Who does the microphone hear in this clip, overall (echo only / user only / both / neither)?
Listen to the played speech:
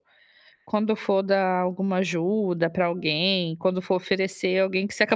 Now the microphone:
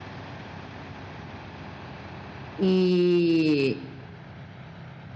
user only